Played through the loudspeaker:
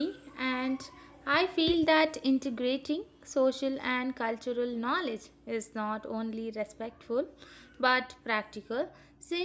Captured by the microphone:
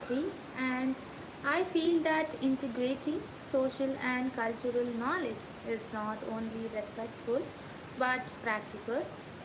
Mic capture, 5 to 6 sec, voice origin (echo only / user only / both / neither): echo only